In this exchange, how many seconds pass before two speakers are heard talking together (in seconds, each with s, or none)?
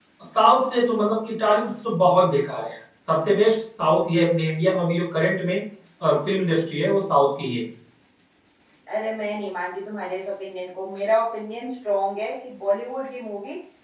none